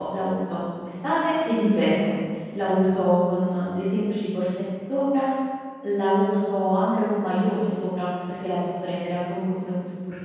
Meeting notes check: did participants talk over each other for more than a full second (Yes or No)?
No